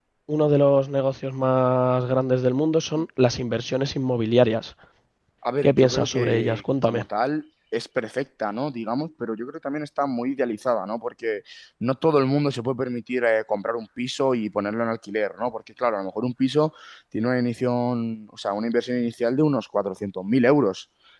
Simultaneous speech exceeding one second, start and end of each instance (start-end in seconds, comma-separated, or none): 5.6-7.0